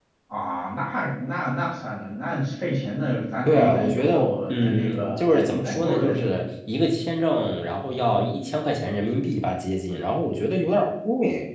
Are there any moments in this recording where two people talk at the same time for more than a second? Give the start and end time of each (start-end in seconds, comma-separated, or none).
3.4-6.4